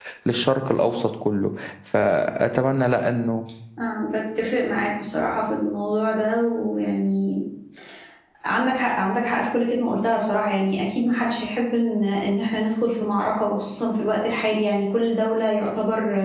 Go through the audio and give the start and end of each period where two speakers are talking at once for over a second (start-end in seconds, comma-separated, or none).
none